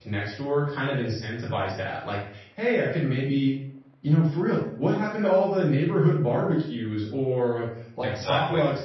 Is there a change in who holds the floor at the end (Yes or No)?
No